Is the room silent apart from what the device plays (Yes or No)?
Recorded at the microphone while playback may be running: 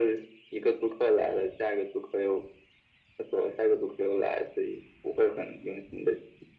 Yes